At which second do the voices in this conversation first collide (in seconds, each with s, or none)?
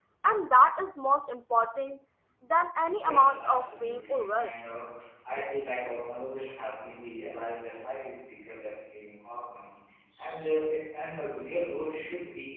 3.0 s